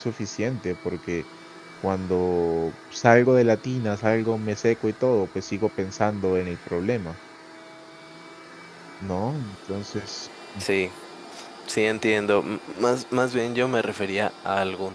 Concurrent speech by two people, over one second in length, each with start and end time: none

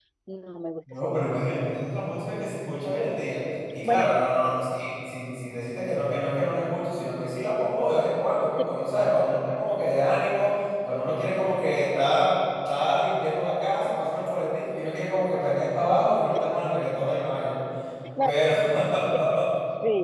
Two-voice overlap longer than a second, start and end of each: none

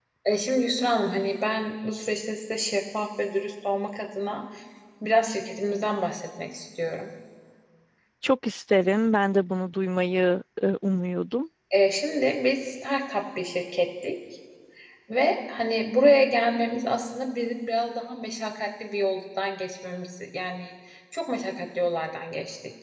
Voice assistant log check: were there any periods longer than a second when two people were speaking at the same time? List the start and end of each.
none

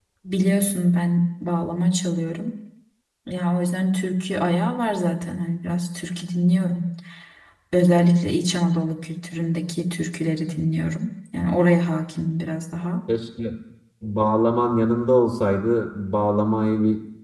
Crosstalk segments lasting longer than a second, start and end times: none

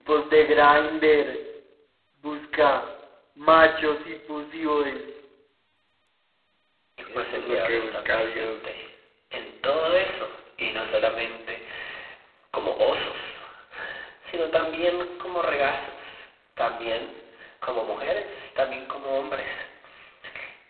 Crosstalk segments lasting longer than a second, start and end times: 7.2-8.7

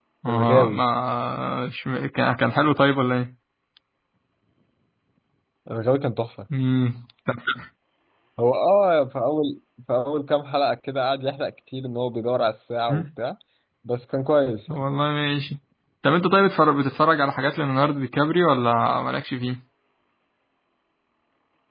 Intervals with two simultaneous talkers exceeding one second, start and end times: none

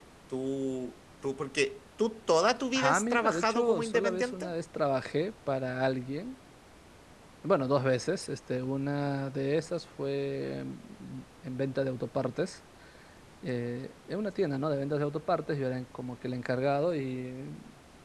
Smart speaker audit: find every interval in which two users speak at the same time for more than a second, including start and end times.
2.8-4.5

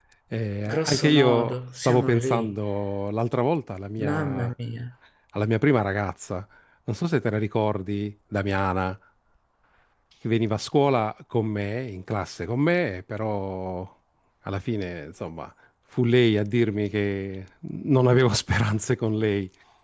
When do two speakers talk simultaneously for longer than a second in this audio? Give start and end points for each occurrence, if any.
0.7-2.5

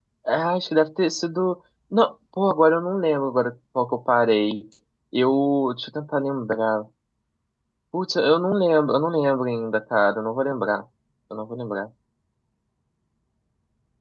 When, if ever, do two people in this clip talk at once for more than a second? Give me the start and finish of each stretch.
none

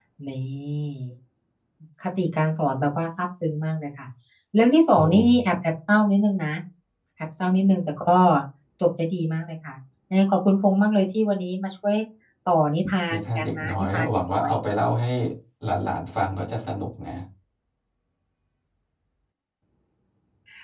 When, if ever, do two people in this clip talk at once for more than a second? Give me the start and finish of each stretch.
13.1-14.5

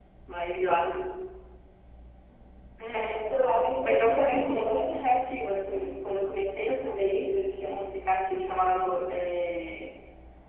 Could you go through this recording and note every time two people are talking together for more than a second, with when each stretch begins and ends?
3.8-5.1

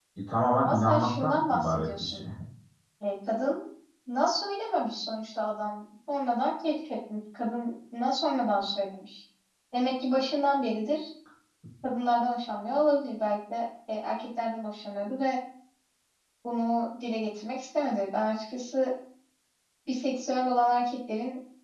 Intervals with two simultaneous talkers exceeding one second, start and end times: 0.6-2.2

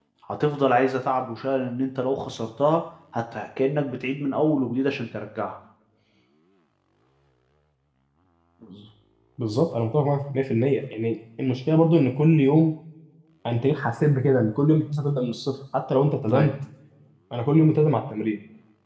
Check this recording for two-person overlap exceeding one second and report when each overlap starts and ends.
none

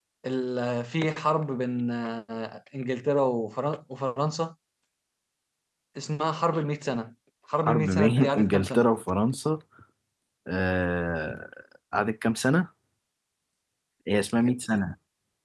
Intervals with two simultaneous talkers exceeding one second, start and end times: 7.7-8.9

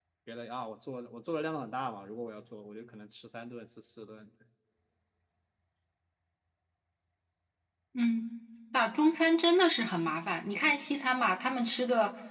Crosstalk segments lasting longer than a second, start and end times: none

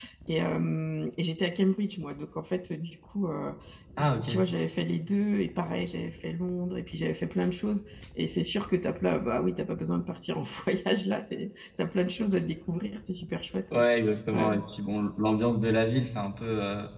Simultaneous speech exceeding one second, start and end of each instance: none

